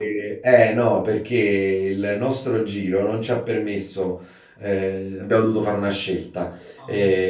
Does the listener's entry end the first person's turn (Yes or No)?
No